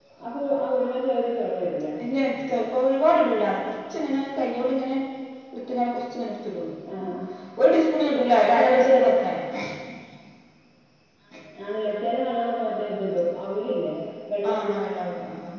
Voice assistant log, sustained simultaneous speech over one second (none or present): none